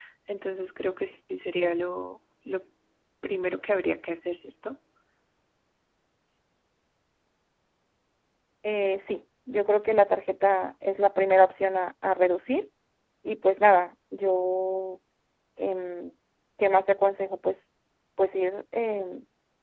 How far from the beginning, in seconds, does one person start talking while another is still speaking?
none

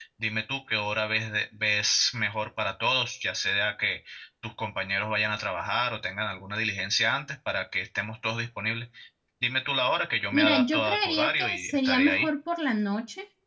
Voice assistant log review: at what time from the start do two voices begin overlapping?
10.3 s

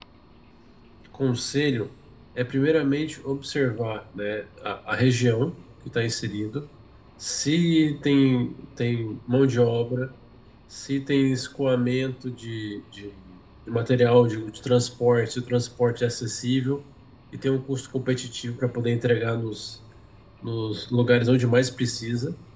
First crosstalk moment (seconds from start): none

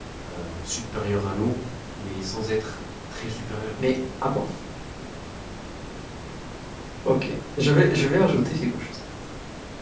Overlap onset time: none

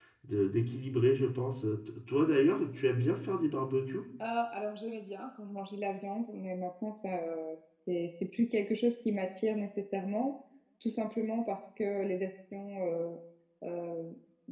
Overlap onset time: none

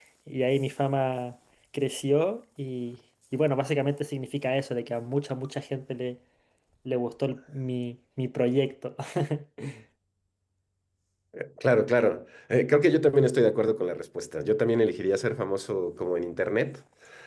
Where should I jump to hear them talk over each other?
none

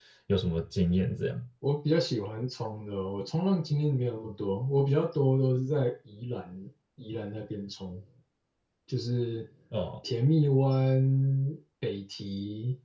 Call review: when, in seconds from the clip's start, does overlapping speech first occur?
none

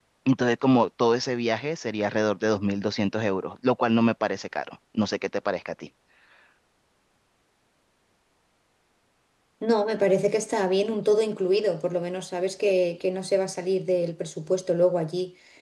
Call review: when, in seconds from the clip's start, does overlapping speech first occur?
none

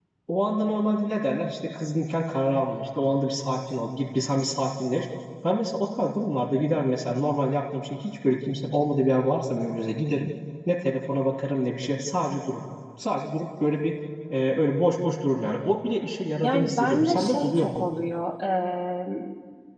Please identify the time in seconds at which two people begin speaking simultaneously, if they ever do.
16.4 s

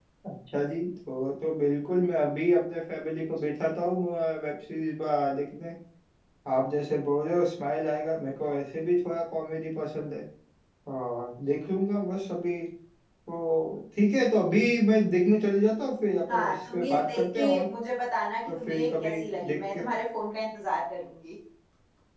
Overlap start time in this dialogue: 16.3 s

